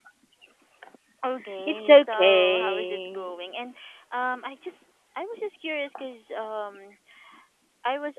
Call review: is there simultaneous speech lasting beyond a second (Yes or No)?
Yes